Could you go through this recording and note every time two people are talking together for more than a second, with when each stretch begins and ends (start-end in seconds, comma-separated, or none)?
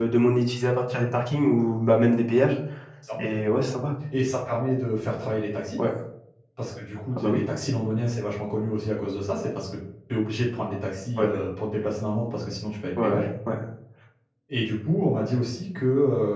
none